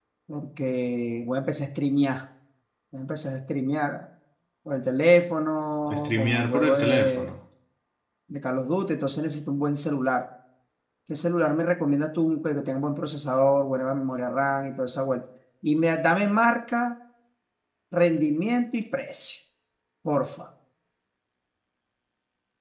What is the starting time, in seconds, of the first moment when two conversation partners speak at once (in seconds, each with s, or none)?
5.9 s